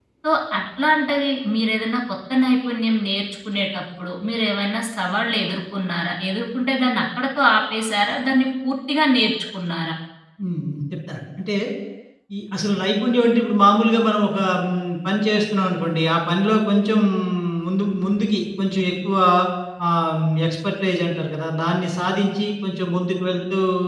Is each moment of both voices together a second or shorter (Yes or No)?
Yes